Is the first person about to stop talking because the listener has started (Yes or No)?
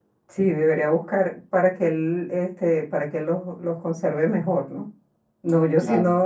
No